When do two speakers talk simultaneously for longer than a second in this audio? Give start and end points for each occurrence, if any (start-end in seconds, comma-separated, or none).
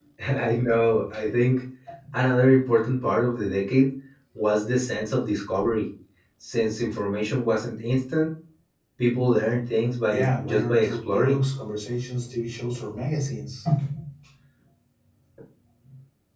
10.1-11.4